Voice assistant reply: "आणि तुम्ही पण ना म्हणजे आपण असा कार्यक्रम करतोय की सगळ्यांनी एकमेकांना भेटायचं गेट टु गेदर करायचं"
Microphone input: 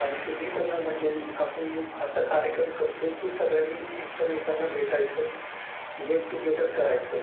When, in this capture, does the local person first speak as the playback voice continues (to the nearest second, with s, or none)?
none